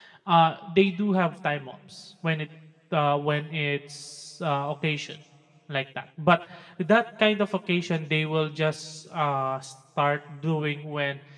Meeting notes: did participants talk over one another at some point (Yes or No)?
No